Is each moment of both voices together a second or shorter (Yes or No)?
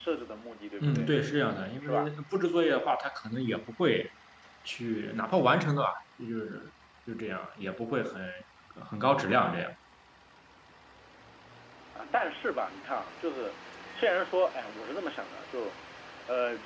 Yes